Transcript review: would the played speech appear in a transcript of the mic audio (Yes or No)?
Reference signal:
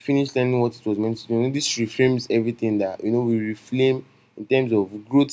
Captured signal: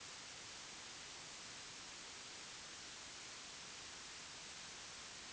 No